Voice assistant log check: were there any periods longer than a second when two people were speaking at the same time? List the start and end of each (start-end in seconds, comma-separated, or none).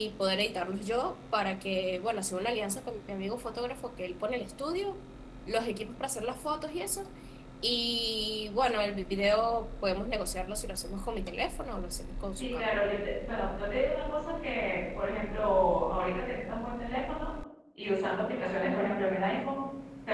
none